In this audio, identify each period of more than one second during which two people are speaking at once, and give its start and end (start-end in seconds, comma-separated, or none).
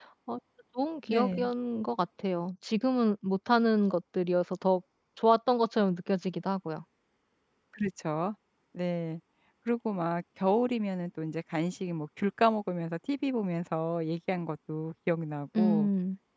none